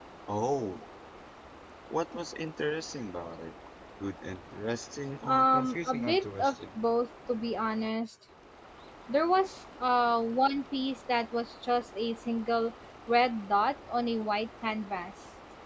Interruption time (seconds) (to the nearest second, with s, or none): 5 s